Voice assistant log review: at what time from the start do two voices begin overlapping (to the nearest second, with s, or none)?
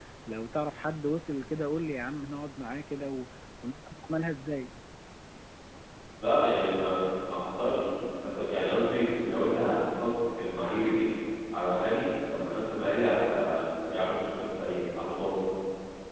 none